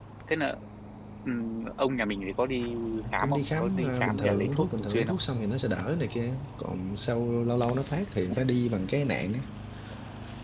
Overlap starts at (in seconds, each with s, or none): 3.2 s